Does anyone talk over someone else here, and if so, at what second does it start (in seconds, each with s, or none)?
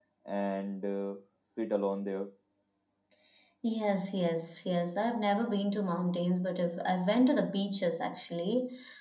none